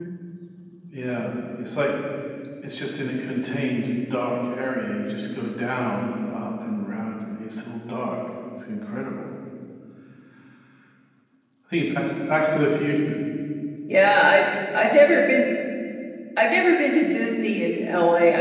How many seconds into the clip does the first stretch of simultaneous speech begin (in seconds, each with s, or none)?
none